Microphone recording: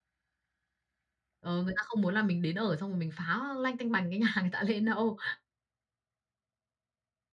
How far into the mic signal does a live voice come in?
1.4 s

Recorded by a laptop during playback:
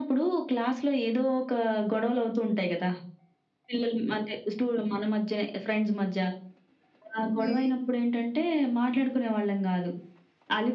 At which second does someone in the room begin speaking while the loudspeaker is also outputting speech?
7.4 s

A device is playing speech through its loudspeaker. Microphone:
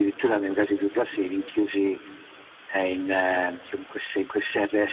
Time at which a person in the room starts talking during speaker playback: none

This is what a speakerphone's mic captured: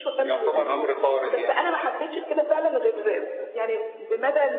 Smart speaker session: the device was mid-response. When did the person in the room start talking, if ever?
0.5 s

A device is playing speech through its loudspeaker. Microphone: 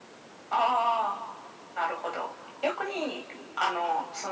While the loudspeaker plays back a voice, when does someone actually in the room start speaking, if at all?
none

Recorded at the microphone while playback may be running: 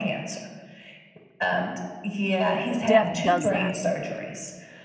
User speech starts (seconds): 2.8 s

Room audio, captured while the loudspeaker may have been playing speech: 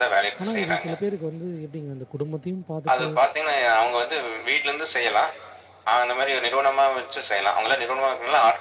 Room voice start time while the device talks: 0.4 s

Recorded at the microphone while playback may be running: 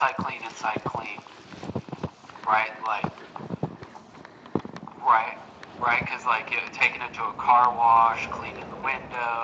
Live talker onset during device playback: none

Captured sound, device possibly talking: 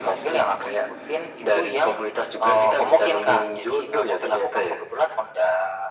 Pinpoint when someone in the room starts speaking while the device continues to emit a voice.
none

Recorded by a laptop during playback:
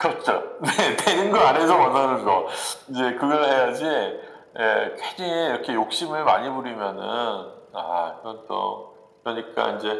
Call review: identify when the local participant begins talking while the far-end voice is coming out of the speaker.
none

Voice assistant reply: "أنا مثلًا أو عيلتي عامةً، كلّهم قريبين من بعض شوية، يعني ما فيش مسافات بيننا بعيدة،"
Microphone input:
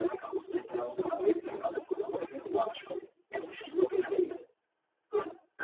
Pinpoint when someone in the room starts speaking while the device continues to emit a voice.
none

